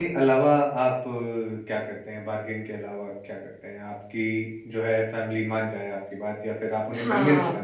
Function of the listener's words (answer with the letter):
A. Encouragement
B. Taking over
B